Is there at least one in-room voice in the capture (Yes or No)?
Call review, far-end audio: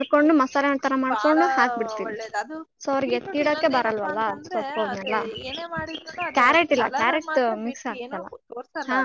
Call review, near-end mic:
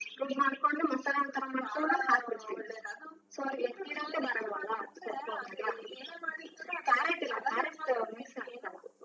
No